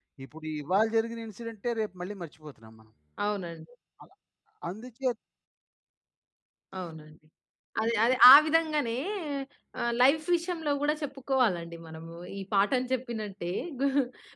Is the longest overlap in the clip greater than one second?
No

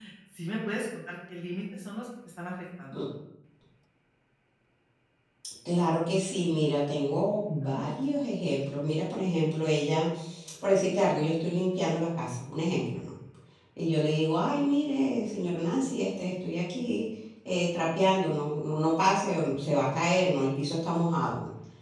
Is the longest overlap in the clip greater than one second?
No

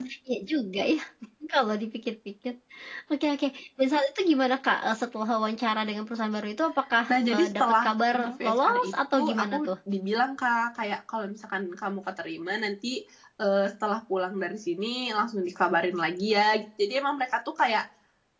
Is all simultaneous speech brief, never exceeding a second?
No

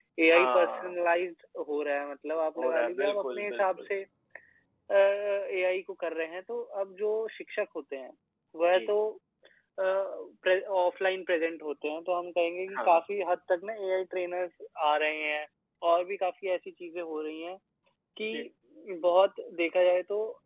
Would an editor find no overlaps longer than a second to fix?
No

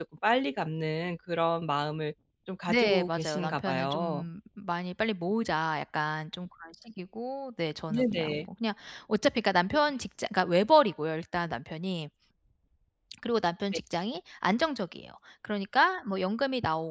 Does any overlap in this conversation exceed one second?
Yes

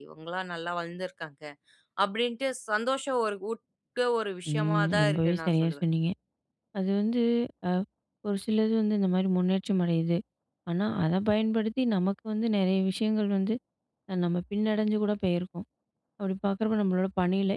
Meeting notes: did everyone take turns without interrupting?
No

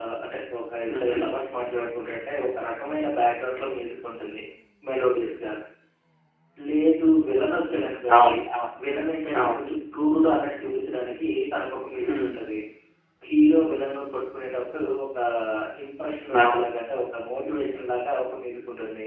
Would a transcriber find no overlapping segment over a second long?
Yes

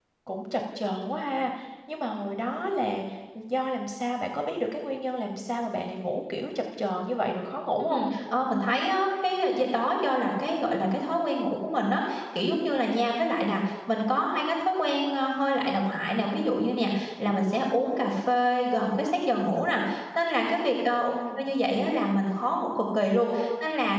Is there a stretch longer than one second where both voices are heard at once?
No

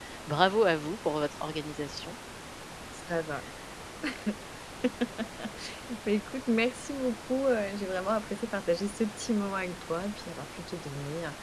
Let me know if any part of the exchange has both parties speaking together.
No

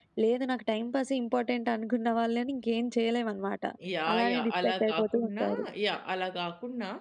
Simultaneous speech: Yes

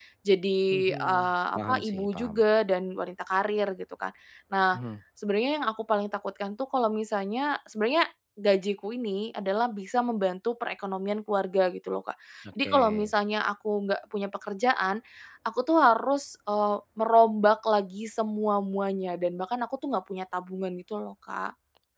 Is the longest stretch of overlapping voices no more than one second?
No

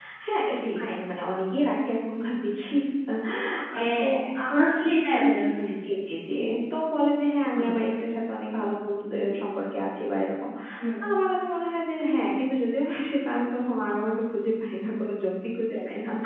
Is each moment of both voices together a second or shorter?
Yes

